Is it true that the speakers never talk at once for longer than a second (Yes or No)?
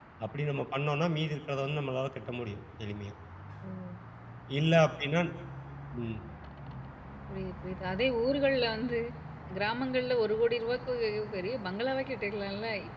Yes